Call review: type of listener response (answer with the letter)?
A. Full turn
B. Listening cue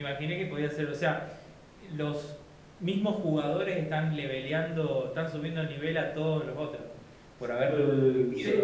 A